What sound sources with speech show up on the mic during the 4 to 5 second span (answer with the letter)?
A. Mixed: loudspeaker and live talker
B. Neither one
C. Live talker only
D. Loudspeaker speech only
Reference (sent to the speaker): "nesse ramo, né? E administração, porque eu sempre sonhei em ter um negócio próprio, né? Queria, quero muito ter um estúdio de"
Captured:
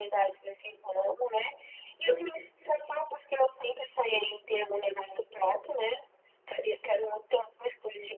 D